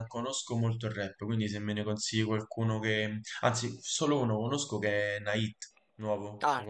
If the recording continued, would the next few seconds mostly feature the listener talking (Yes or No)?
Yes